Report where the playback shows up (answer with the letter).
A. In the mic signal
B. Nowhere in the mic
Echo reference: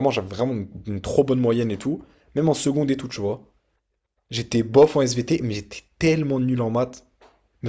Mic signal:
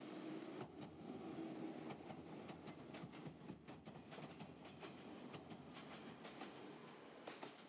B